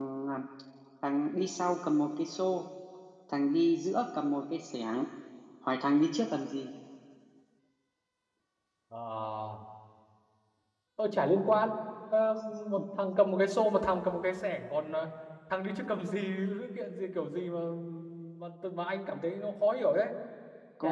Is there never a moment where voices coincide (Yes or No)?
Yes